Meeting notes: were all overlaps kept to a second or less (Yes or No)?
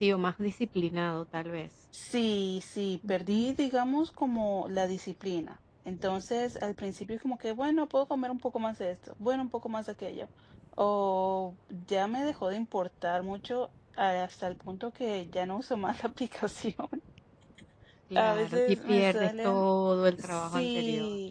No